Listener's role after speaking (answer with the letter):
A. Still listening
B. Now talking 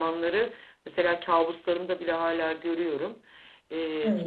A